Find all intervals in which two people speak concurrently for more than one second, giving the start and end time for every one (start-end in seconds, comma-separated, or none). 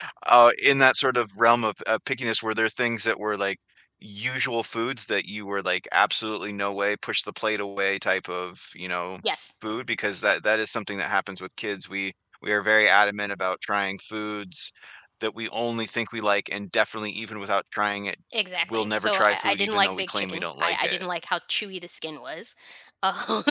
18.7-21.0